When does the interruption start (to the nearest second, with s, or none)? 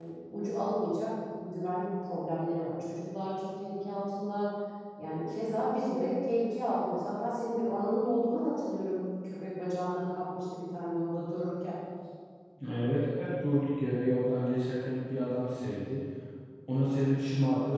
none